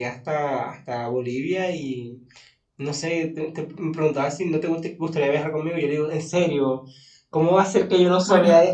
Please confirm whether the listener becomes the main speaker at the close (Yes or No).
Yes